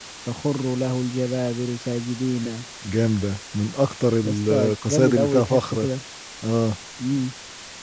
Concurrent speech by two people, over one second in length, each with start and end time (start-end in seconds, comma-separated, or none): 4.2-5.9